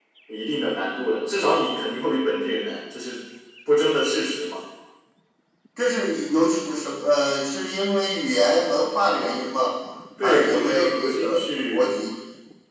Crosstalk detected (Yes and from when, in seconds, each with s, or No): Yes, from 10.2 s